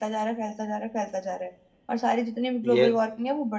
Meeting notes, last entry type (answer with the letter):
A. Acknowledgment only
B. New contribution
A